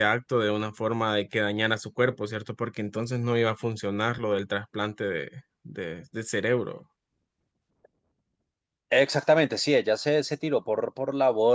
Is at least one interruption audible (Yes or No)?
No